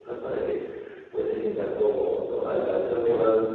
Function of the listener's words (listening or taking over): listening